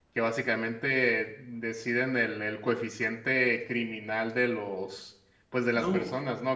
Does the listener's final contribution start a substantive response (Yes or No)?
No